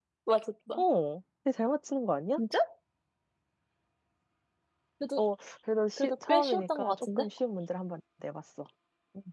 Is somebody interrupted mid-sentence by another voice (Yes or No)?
Yes